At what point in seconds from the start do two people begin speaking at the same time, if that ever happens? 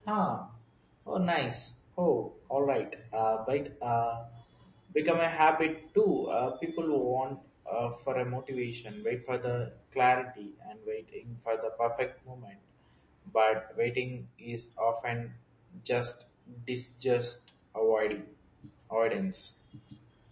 none

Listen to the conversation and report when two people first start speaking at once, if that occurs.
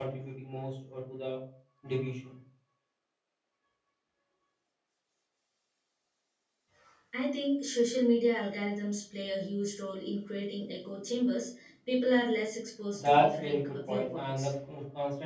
13 s

